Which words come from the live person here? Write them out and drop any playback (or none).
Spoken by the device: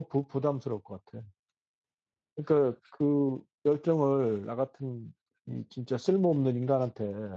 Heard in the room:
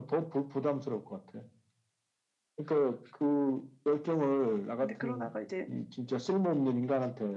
근데 그러다가 이제